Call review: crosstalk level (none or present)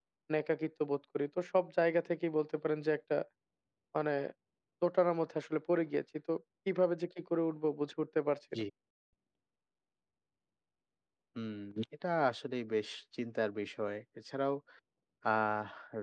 none